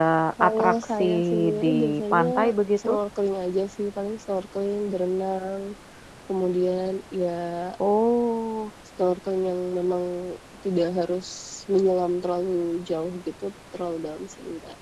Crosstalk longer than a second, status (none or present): present